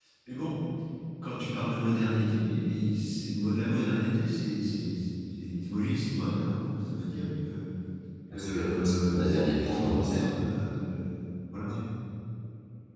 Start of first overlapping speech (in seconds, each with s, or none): 8.3 s